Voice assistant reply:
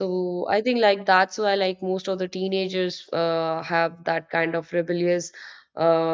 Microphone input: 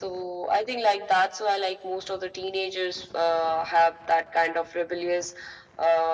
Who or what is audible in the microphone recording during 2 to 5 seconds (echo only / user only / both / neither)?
echo only